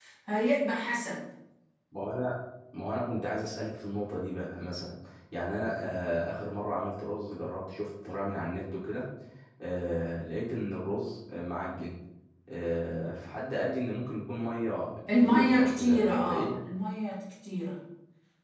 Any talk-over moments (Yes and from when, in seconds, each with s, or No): Yes, from 15.1 s